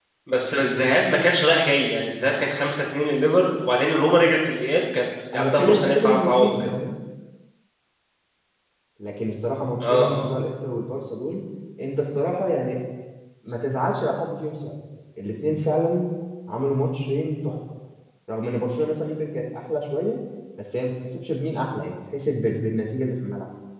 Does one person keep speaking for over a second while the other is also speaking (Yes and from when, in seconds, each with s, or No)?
Yes, from 5.3 s